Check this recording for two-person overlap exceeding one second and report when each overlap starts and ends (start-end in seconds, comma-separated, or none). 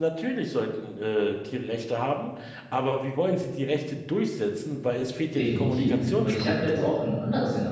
5.3-6.9